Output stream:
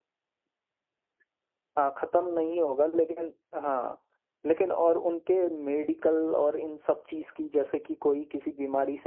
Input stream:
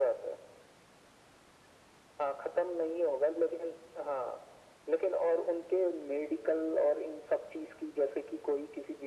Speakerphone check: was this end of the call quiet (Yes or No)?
Yes